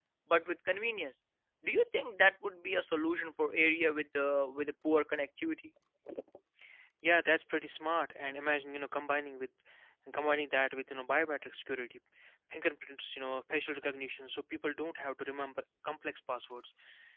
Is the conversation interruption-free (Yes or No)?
Yes